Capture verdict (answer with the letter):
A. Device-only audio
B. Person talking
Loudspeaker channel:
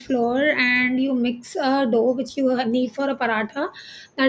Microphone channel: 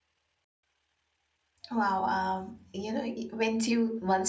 B